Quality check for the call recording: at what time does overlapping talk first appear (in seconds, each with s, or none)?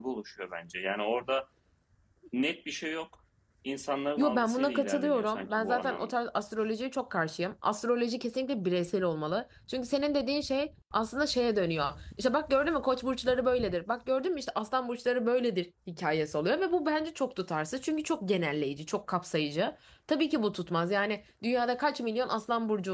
4.2 s